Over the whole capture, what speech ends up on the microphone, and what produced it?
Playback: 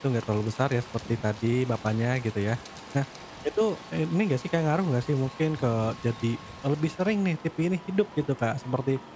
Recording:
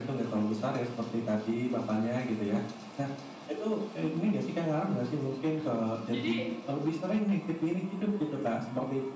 both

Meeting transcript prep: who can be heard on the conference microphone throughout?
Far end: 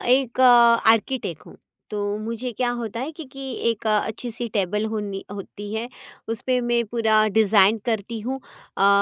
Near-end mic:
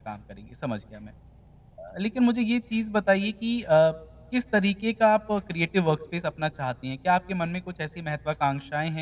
user only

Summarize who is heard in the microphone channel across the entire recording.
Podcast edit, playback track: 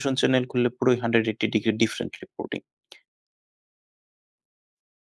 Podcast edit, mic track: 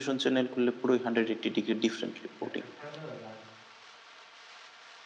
both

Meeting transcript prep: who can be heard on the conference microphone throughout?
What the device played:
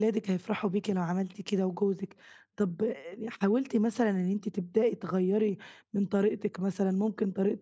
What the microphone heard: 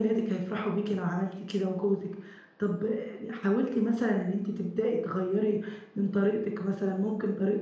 echo only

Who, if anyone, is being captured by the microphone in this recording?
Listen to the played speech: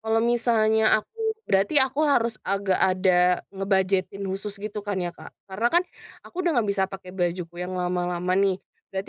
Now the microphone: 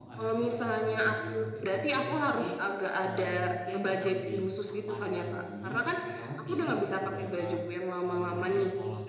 both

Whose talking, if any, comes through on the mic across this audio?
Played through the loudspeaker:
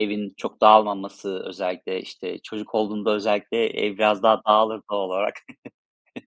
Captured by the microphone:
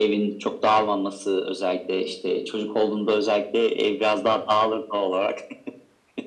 echo only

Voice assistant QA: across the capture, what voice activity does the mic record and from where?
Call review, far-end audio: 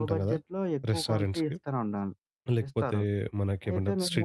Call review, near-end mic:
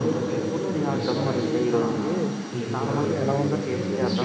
both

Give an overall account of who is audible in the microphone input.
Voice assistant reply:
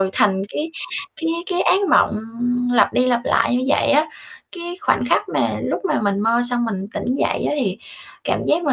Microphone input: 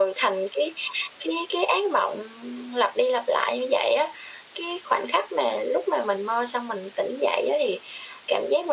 echo only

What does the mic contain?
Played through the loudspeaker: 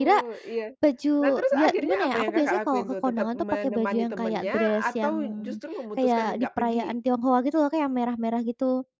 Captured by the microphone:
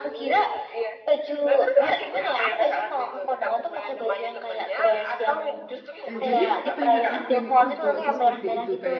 both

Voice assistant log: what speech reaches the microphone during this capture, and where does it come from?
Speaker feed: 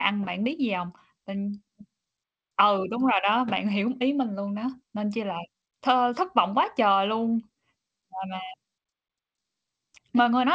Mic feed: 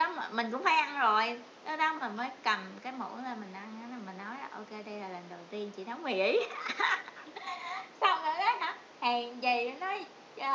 user only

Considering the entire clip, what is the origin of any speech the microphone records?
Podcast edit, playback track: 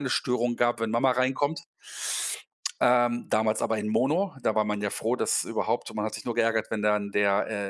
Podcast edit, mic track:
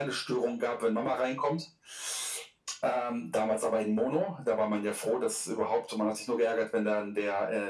echo only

